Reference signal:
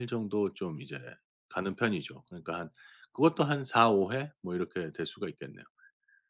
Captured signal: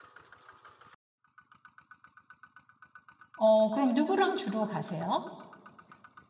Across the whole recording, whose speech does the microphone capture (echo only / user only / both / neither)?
user only